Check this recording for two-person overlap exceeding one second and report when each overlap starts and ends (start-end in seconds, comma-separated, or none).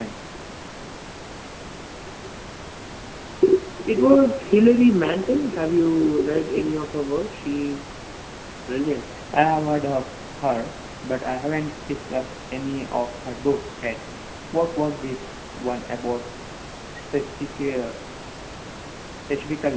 none